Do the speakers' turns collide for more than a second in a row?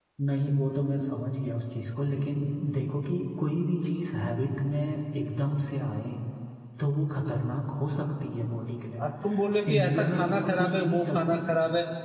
Yes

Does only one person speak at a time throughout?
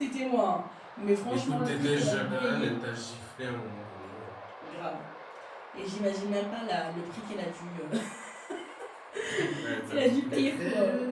No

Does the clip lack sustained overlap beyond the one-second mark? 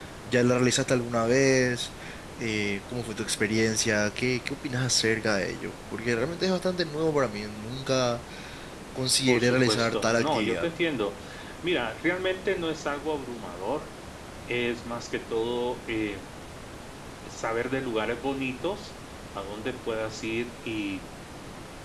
No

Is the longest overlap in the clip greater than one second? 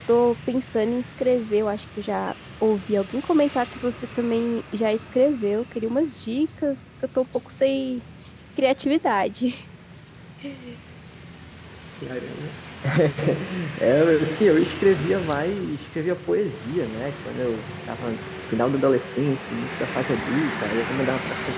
No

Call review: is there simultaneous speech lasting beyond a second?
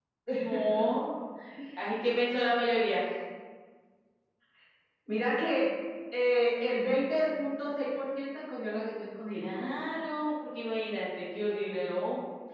No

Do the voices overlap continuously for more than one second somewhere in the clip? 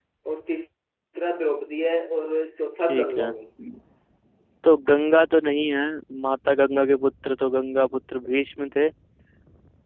No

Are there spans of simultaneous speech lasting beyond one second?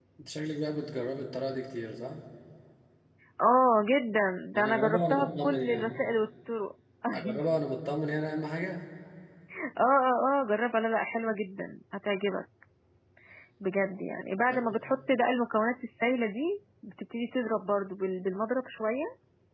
Yes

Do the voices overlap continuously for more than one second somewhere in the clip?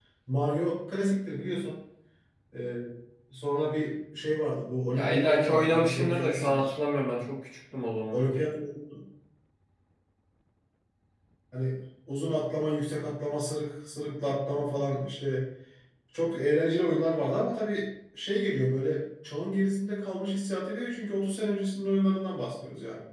Yes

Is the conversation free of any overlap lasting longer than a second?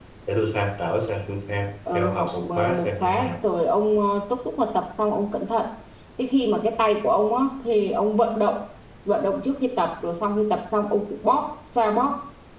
No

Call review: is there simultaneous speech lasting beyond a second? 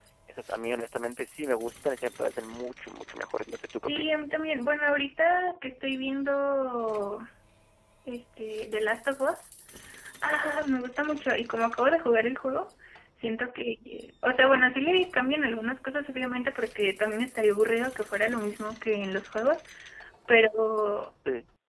No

